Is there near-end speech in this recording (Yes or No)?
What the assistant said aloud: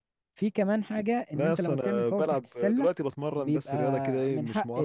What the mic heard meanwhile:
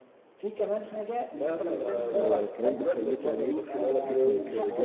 Yes